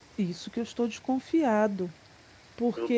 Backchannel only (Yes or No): No